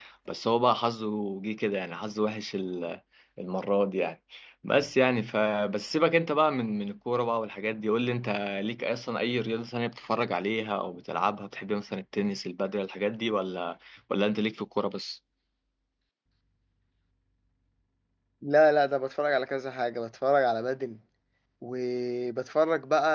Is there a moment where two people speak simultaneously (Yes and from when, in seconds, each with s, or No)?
No